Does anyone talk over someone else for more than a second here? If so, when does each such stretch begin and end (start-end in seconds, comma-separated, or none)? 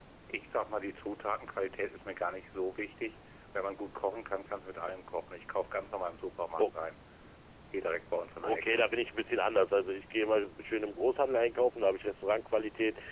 none